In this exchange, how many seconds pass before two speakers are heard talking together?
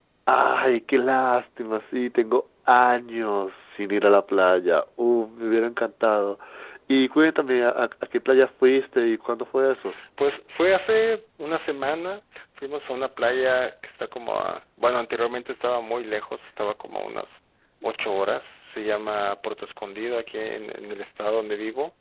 none

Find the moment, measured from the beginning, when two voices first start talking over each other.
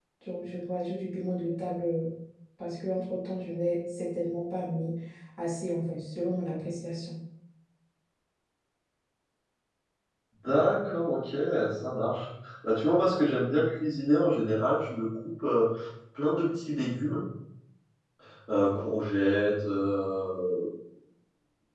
none

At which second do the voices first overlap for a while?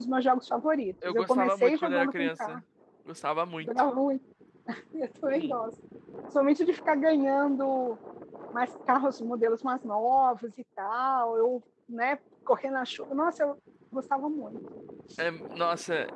1.1 s

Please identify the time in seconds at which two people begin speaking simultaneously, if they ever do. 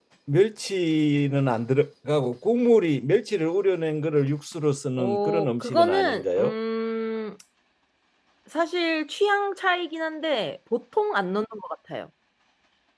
5.0 s

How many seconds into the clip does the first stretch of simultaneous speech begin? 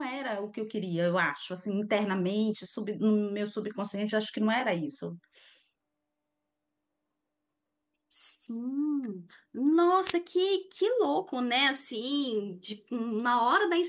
none

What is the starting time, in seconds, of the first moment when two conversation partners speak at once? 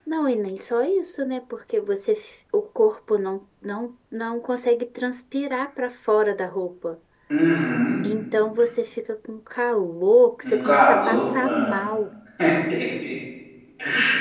10.4 s

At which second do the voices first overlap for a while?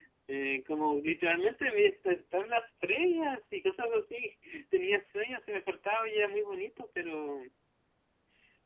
none

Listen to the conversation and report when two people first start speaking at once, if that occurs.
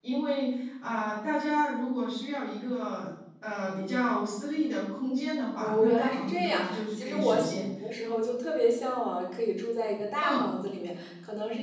5.5 s

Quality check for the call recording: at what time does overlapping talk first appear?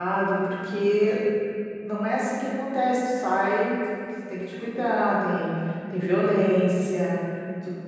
none

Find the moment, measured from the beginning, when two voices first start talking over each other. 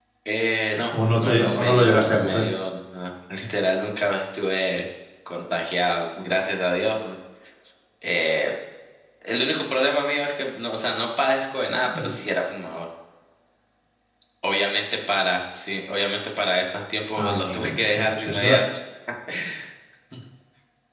1.1 s

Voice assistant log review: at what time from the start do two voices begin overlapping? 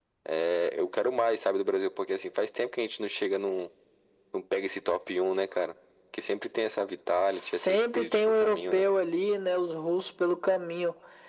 7.3 s

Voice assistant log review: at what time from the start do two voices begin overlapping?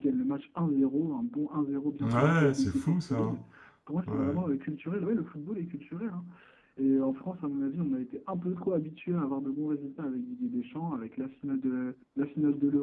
2.0 s

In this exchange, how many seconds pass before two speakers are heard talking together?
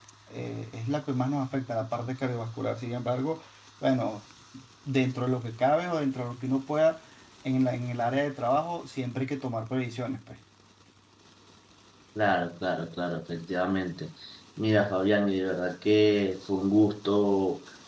none

